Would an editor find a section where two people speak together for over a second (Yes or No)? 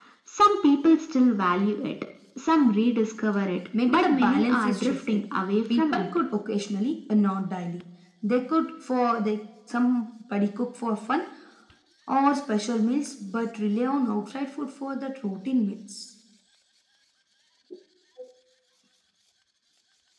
Yes